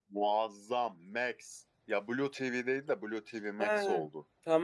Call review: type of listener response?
taking over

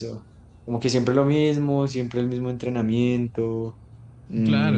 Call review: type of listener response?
taking over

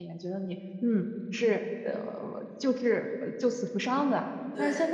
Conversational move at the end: listening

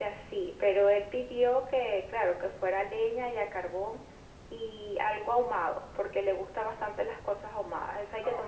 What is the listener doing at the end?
taking over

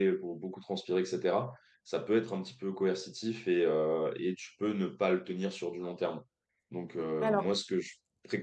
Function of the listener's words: listening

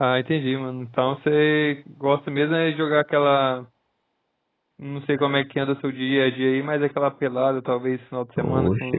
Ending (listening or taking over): taking over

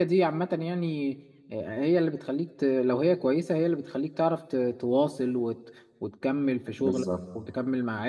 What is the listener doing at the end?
listening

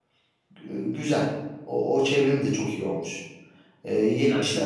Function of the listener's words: listening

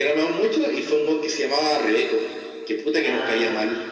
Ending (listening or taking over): taking over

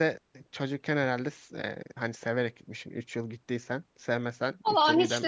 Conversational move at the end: taking over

